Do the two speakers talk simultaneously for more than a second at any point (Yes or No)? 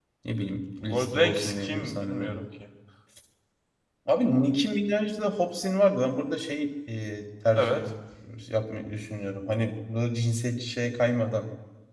Yes